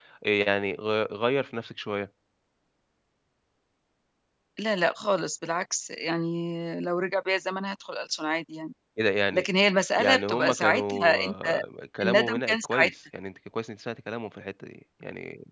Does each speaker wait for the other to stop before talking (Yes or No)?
No